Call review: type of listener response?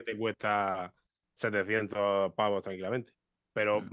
listening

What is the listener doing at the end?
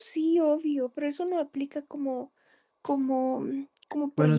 taking over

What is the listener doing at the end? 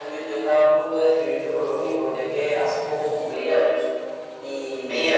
listening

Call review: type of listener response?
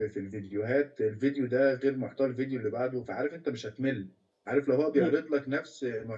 listening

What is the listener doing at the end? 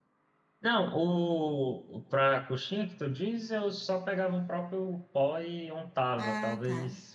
listening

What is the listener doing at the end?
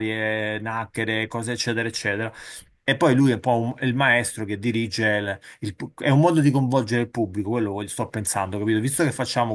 listening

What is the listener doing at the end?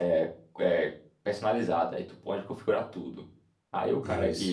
listening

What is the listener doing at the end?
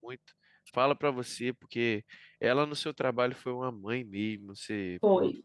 listening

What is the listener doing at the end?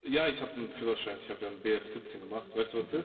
taking over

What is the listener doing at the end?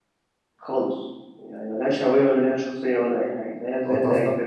taking over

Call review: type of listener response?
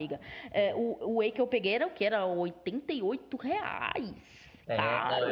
taking over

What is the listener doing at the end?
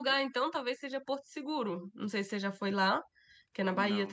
listening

